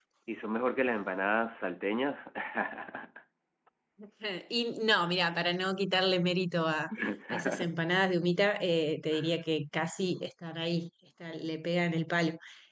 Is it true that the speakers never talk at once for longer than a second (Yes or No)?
Yes